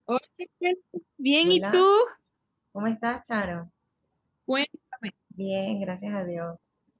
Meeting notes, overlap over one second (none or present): none